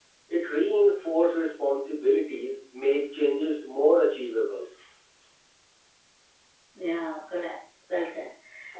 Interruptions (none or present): none